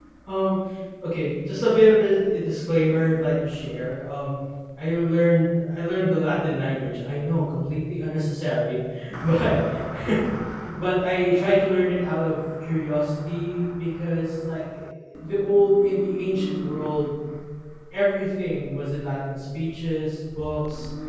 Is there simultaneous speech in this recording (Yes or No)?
No